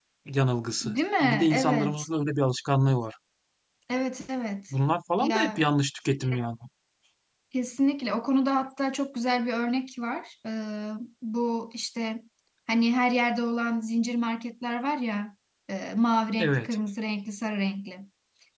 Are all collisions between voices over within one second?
No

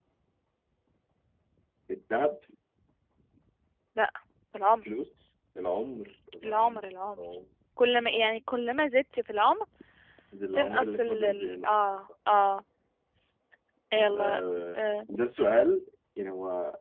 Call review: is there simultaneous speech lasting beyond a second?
Yes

